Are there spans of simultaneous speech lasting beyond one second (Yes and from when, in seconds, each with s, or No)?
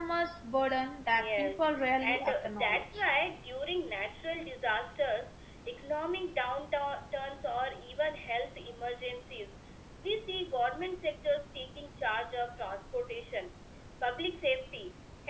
Yes, from 1.1 s